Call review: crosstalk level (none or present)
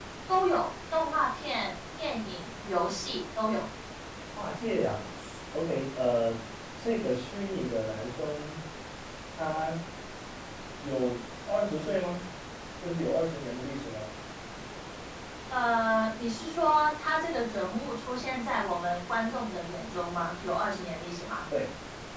none